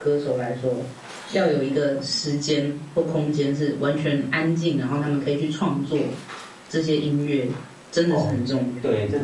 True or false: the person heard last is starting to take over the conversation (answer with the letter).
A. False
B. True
B